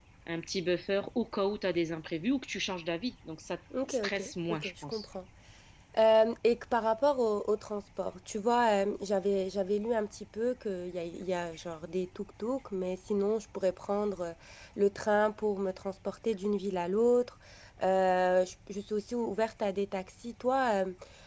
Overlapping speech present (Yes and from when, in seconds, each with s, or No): Yes, from 3.7 s